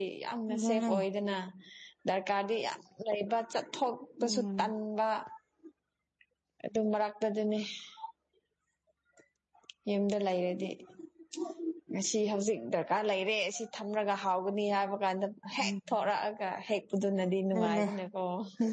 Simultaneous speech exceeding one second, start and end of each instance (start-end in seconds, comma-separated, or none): none